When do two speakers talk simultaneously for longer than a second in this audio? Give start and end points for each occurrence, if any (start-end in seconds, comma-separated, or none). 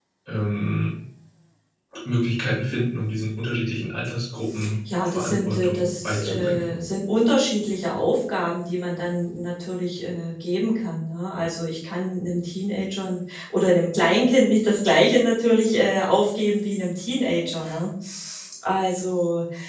5.0-6.7